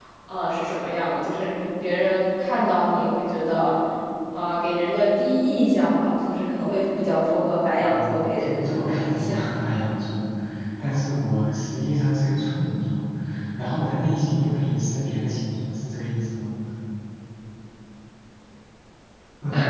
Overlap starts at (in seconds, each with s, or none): 7.8 s